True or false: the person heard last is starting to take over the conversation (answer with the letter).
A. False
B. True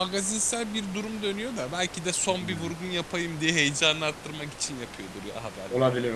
B